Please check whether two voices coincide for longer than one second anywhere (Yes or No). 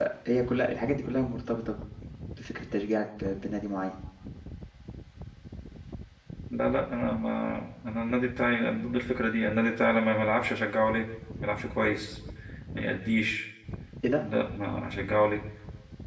No